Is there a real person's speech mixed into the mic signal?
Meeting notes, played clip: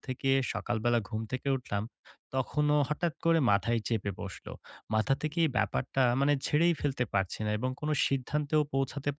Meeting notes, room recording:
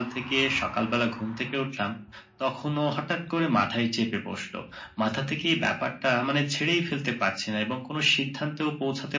No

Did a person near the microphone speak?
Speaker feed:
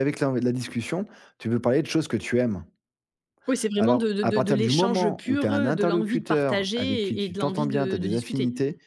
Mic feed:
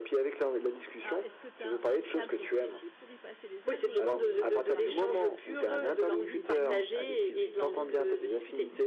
Yes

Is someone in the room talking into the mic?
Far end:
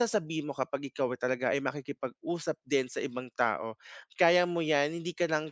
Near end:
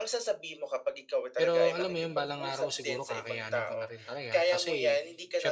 Yes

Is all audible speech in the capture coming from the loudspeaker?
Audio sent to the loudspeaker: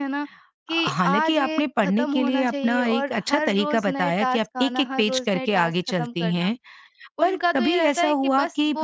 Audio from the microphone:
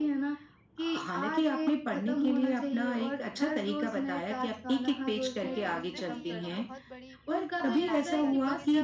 No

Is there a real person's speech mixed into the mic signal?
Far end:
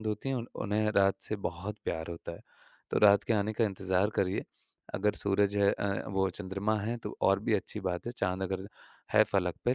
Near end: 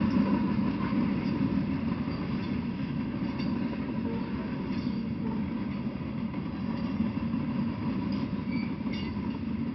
No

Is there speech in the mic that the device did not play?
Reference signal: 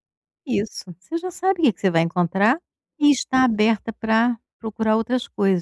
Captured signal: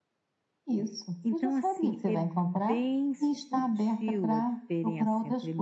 Yes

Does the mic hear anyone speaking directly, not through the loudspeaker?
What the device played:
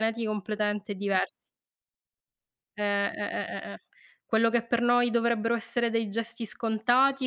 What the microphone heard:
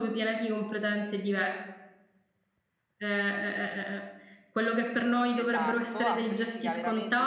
Yes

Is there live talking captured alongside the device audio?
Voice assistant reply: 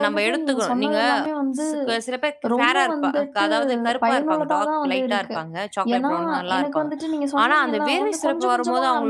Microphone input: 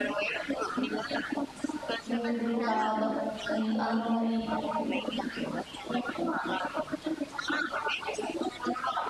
Yes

